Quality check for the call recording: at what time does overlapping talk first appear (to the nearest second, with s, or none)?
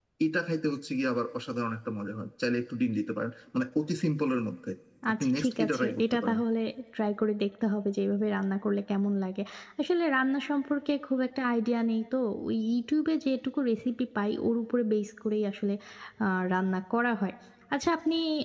5 s